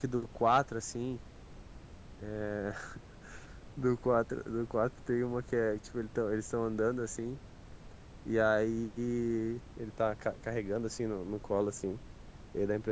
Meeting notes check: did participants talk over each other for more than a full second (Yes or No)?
No